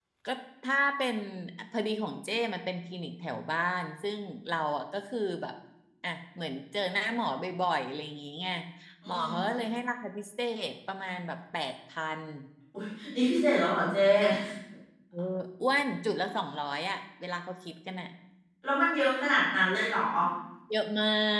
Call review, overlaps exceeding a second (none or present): none